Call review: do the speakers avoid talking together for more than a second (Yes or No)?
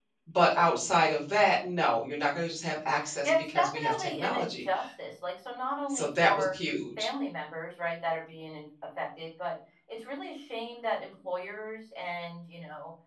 No